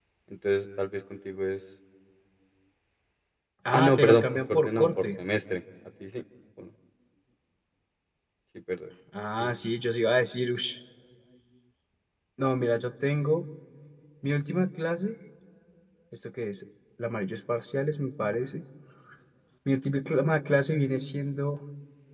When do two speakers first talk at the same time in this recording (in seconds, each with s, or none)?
3.7 s